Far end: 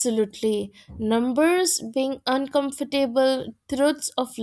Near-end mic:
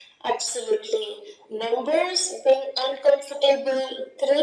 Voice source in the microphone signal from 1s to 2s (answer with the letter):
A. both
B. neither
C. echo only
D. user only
C